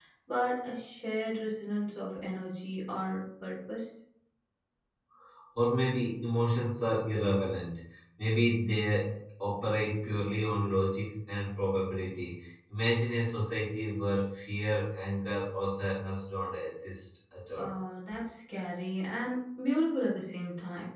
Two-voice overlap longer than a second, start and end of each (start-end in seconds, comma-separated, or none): none